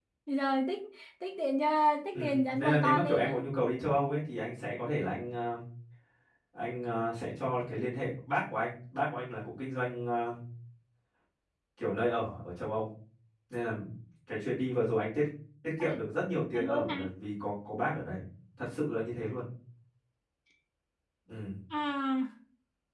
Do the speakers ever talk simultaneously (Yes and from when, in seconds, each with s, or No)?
Yes, from 2.1 s